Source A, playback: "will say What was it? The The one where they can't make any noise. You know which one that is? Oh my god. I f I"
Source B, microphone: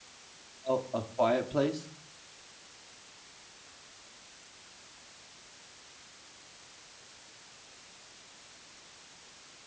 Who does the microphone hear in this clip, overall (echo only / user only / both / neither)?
user only